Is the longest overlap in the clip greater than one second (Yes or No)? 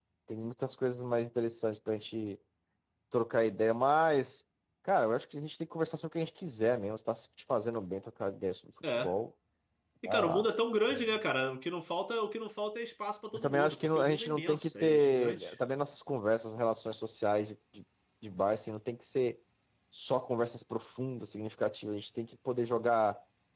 Yes